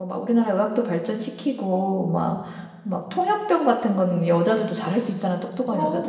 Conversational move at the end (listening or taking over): listening